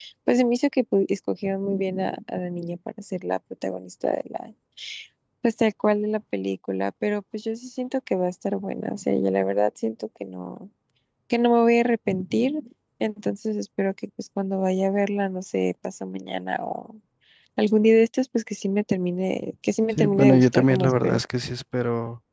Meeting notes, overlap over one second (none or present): present